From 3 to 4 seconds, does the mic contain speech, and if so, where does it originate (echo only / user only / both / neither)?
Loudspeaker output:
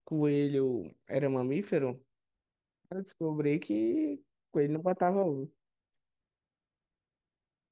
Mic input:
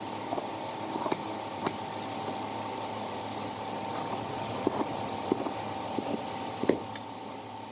neither